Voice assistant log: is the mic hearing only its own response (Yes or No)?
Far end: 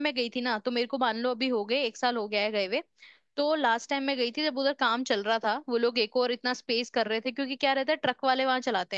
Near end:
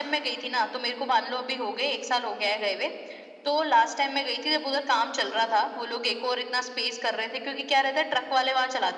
Yes